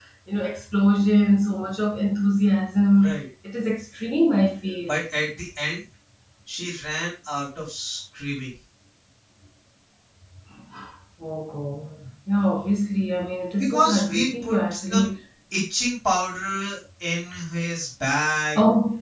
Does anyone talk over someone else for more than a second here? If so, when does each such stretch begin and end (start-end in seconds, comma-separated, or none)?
13.6-15.1